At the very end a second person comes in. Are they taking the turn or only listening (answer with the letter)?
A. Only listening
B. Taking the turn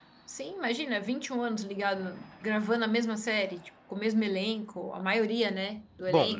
B